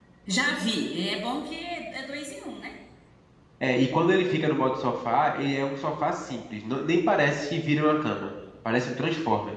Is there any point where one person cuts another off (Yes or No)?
No